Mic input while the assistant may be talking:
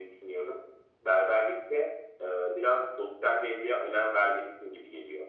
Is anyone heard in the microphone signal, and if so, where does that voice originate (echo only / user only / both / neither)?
echo only